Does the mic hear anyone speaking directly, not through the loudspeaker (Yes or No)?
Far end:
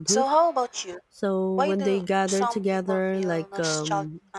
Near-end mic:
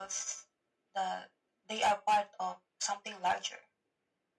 Yes